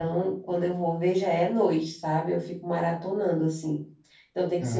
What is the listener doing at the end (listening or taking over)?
listening